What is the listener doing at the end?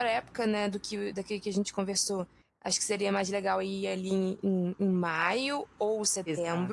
taking over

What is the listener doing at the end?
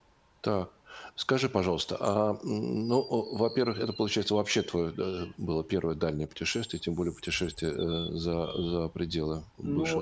taking over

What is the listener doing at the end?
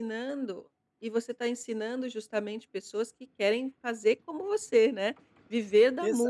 taking over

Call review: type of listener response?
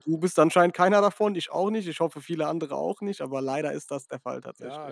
taking over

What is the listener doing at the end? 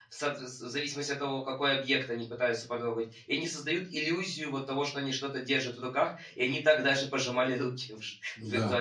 taking over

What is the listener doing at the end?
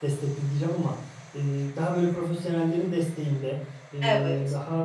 listening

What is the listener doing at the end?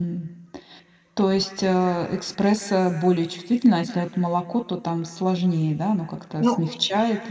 listening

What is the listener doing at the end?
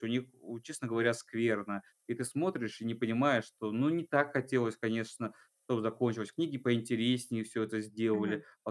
taking over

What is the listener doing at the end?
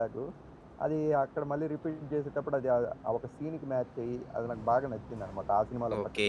taking over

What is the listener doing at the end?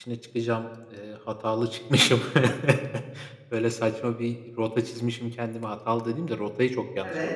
taking over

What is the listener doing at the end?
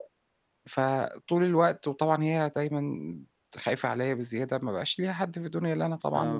taking over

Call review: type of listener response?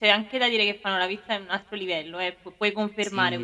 taking over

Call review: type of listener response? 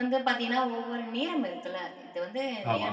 listening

